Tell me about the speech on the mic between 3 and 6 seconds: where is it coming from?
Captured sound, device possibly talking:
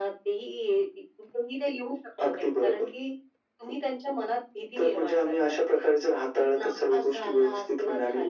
echo only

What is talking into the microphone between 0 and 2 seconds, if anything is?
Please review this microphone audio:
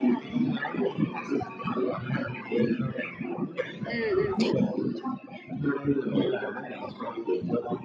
echo only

